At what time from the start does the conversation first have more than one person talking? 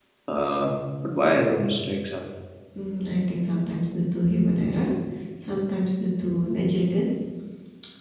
none

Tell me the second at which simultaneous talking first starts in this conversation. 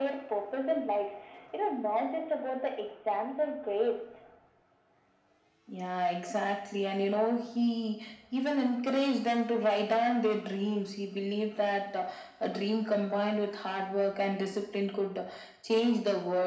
none

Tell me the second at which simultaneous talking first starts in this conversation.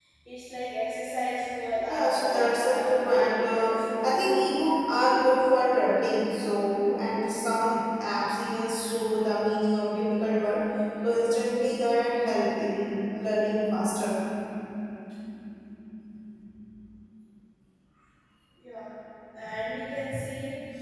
1.9 s

